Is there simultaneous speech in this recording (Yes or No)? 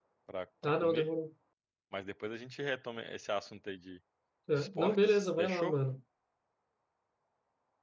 Yes